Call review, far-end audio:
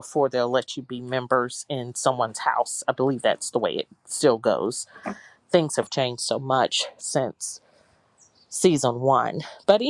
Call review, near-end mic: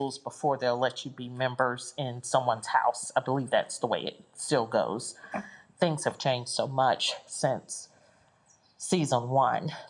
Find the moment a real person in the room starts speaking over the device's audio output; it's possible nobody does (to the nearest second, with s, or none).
none